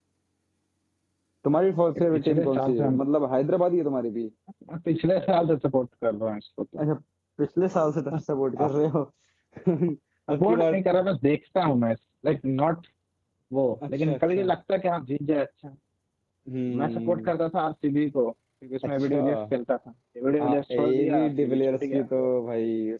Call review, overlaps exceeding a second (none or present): present